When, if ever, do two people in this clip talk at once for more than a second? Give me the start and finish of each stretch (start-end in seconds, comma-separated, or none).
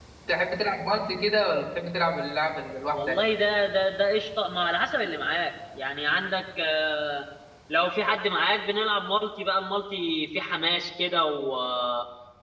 none